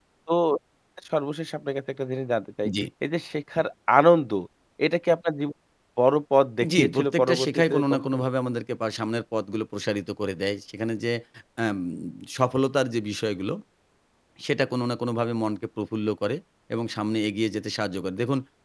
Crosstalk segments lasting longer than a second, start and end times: 6.8-8.2

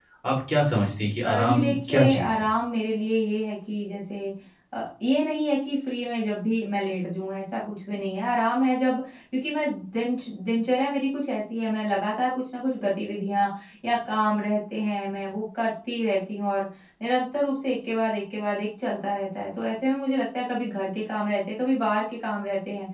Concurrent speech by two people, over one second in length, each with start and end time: 1.2-2.5

